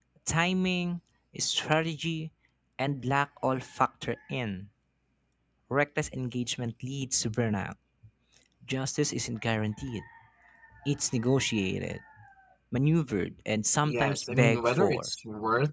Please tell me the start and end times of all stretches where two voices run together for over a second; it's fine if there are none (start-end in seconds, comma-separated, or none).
13.9-15.1